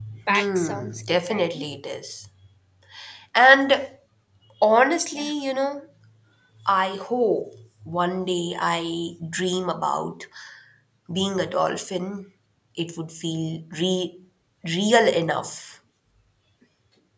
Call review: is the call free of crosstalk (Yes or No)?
No